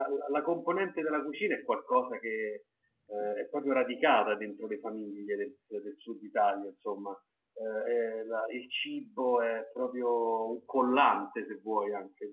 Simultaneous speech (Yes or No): No